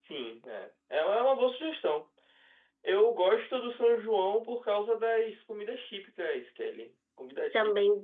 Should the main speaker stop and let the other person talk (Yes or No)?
Yes